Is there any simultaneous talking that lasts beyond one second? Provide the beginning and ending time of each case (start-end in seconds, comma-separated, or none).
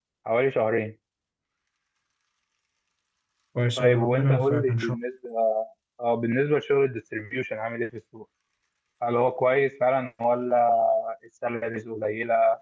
3.8-5.0